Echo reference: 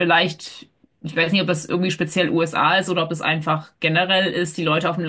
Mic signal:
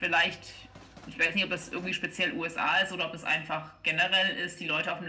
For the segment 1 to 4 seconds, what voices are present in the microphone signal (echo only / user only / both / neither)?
echo only